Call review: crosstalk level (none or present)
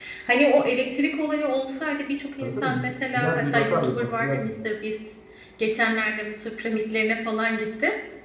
present